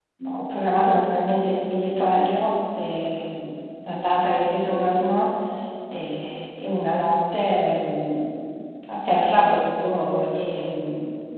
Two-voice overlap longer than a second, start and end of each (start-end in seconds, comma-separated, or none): none